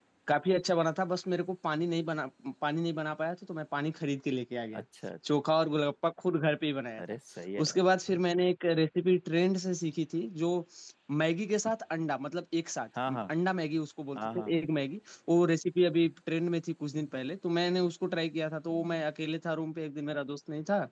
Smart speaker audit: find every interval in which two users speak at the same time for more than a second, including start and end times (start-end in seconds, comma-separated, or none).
none